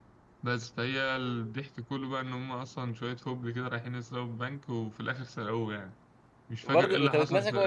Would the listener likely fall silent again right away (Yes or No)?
No